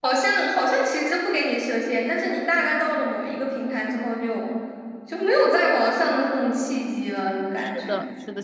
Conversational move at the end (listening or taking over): taking over